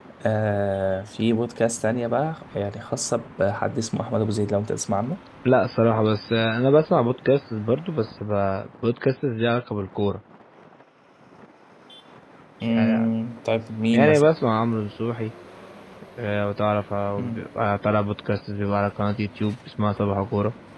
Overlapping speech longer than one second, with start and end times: none

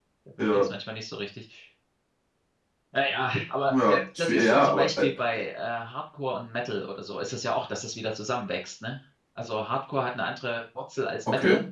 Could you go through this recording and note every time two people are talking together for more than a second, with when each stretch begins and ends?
3.7-5.1

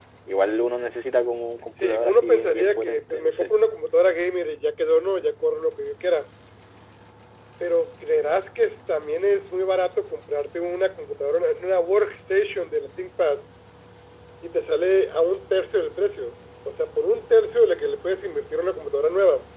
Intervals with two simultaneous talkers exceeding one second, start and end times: 1.8-3.5

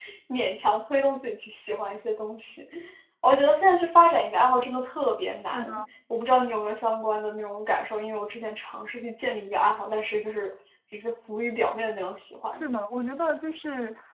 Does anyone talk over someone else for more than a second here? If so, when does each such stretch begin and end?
none

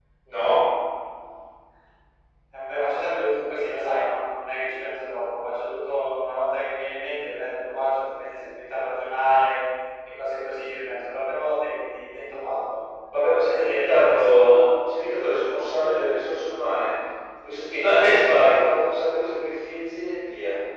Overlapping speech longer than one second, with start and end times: 13.4-14.7

